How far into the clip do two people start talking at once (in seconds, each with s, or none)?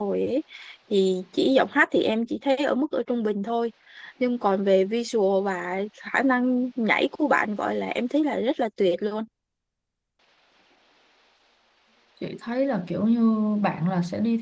none